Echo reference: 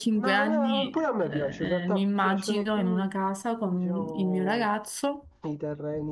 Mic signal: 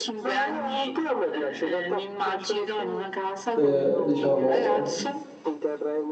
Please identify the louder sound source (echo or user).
user